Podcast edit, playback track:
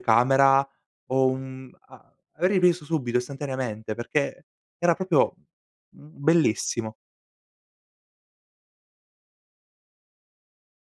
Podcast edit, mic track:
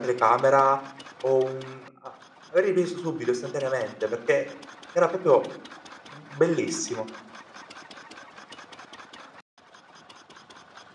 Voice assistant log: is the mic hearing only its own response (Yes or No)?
Yes